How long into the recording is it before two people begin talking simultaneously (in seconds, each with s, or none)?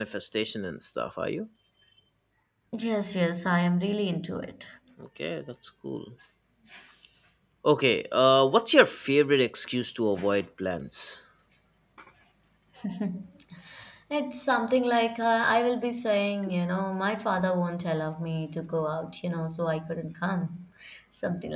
none